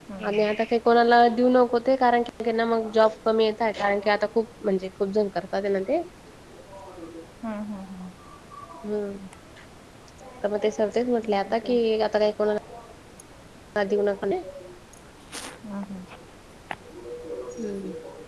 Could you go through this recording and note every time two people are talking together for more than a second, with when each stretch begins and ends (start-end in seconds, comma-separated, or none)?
none